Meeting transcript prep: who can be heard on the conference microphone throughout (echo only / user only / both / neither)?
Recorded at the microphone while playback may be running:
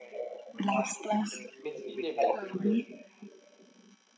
both